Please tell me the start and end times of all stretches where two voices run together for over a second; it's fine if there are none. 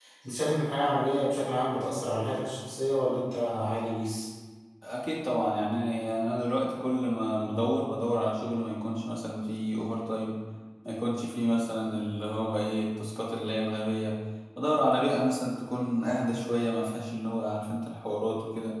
none

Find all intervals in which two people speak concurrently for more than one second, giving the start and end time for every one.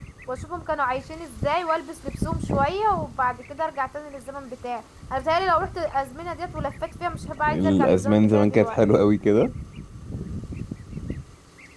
7.5-8.8

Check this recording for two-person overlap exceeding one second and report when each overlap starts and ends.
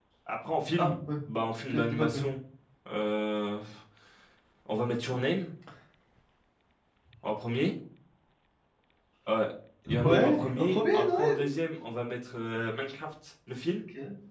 10.0-11.4

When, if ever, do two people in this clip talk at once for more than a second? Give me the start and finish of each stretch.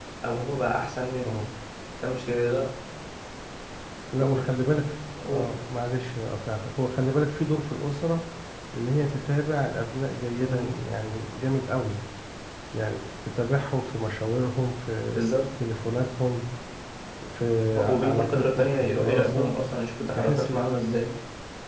17.8-19.5

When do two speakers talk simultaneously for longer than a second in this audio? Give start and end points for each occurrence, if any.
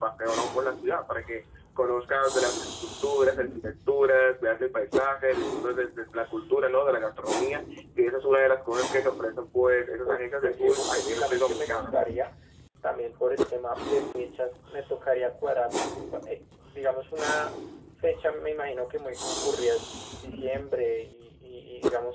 10.1-11.9

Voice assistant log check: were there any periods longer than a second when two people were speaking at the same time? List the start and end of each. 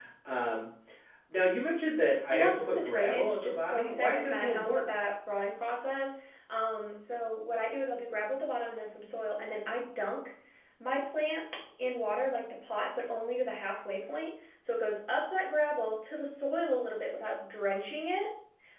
2.3-4.9

